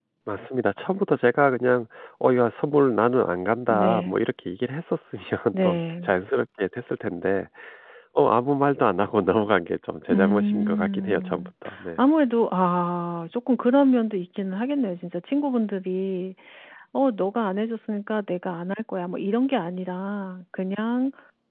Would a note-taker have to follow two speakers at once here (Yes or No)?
Yes